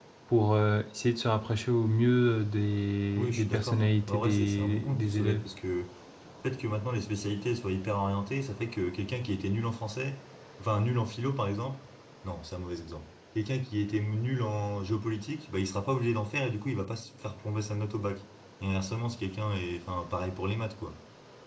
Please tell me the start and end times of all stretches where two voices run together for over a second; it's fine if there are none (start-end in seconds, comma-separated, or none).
3.1-5.4